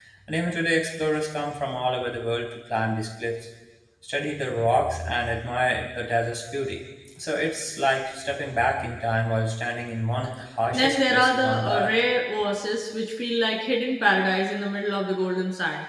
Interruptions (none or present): present